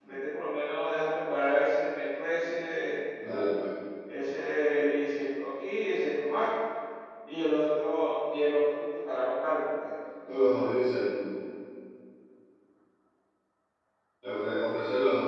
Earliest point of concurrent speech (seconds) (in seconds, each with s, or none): none